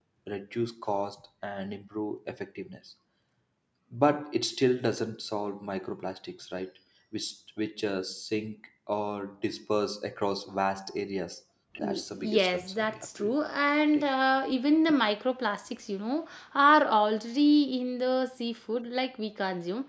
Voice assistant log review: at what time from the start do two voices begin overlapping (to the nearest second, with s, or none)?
12 s